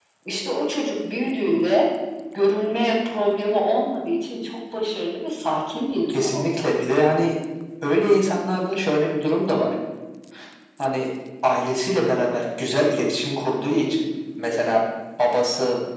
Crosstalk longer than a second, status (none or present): none